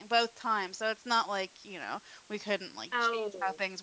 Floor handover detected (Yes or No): No